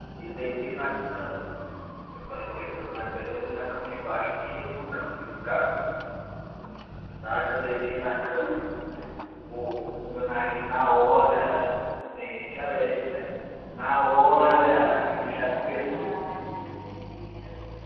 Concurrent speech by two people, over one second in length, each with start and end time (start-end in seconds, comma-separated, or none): none